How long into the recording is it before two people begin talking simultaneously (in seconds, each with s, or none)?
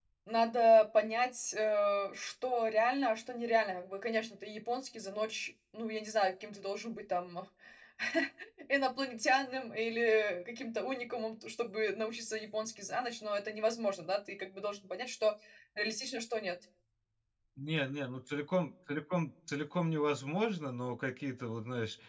none